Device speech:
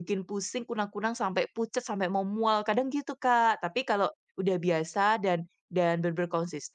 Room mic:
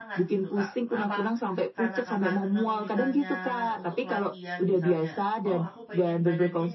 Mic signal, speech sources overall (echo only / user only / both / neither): both